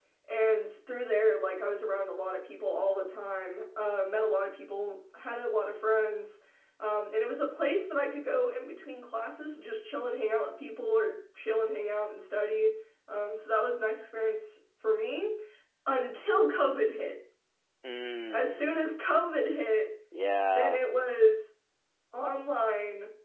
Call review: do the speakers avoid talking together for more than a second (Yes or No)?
Yes